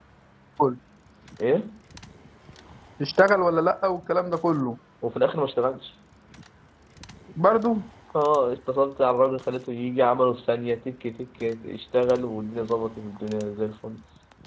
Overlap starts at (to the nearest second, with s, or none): none